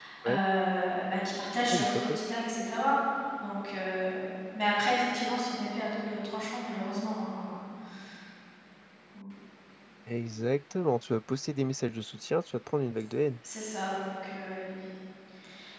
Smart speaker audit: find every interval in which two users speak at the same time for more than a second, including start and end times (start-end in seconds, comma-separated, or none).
none